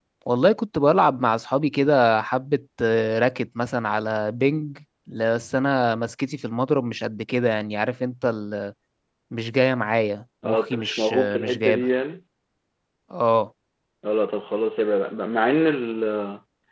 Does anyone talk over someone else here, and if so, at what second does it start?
10.4 s

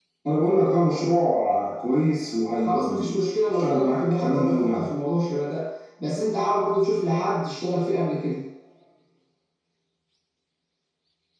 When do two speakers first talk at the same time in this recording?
2.6 s

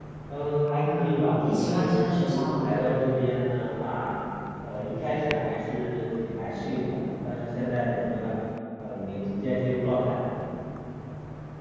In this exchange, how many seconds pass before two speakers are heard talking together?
0.8 s

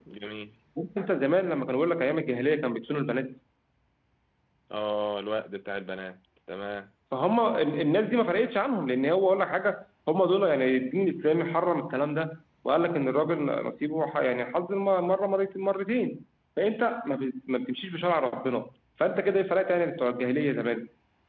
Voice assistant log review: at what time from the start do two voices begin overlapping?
none

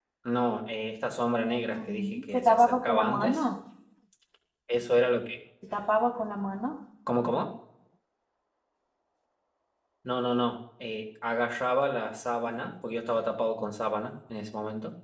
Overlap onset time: 1.7 s

